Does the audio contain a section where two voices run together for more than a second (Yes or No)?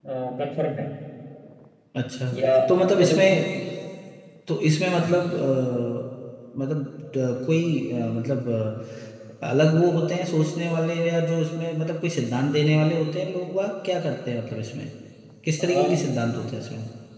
No